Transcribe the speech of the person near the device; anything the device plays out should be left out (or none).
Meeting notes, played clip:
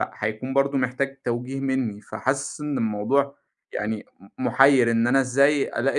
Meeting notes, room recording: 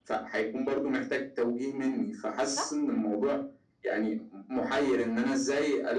صح؟